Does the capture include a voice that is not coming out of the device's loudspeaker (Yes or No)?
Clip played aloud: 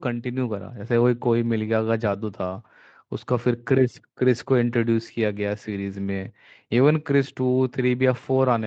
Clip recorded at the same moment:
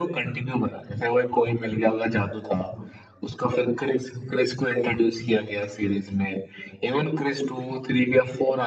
No